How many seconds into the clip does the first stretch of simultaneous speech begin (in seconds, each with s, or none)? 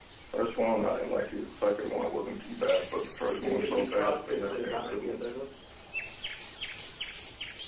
3.3 s